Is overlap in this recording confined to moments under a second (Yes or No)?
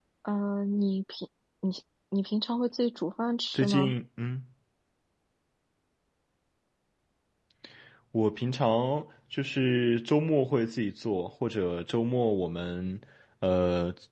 Yes